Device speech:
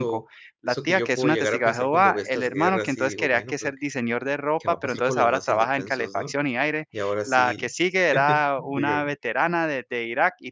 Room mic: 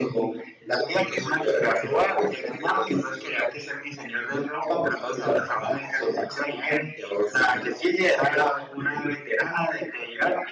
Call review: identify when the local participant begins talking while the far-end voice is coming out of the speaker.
none

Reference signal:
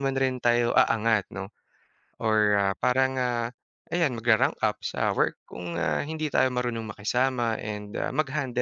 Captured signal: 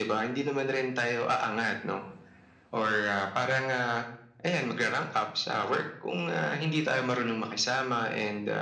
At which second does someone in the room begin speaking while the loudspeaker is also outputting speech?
none

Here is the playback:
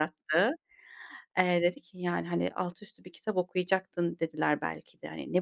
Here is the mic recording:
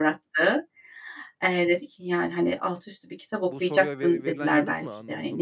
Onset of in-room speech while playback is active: 3.4 s

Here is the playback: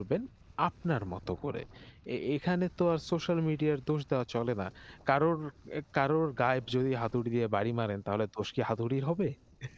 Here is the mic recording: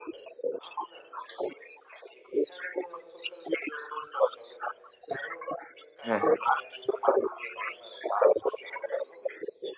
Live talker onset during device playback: 6.0 s

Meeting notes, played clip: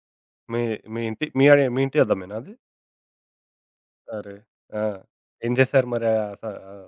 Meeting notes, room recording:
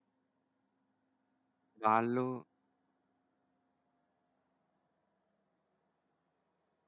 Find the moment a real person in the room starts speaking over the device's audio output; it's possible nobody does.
1.9 s

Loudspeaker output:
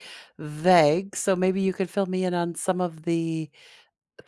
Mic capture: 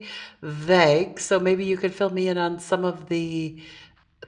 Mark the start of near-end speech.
none

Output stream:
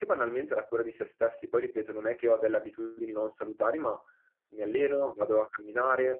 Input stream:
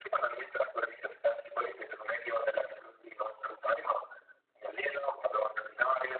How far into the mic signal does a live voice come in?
none

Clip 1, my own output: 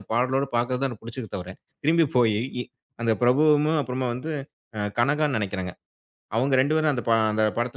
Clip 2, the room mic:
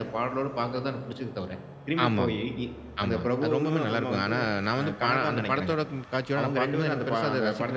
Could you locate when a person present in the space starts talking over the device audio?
2.0 s

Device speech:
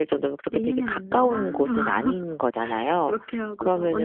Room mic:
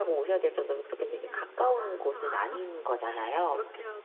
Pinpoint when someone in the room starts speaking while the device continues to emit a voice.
none

